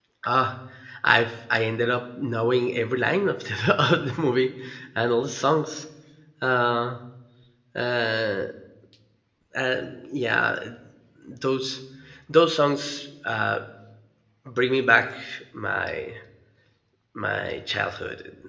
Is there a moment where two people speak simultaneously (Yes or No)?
No